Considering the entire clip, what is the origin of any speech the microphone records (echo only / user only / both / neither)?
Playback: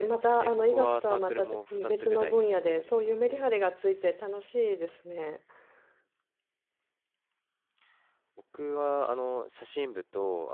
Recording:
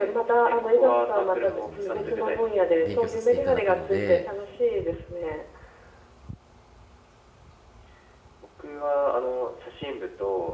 both